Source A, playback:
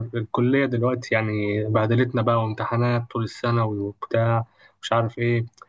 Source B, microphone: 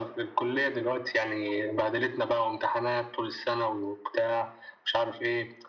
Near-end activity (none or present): none